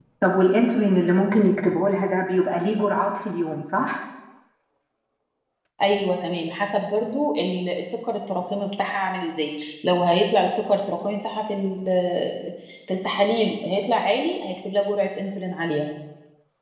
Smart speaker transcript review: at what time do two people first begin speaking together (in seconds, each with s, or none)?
none